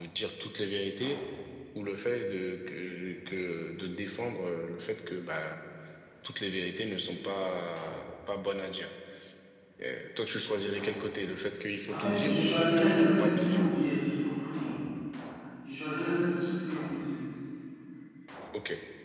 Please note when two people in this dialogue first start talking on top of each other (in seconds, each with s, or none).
11.9 s